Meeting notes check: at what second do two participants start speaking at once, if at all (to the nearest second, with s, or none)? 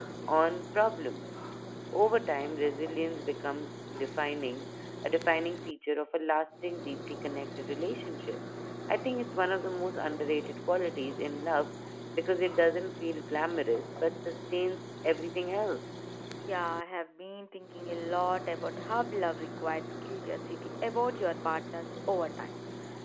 none